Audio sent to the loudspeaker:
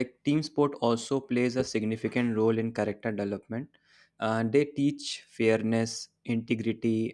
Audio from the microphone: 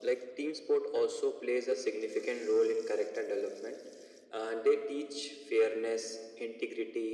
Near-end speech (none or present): none